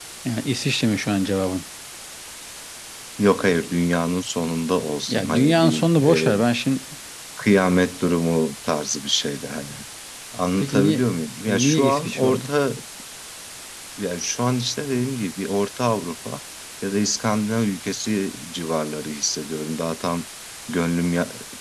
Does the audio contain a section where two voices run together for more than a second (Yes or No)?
Yes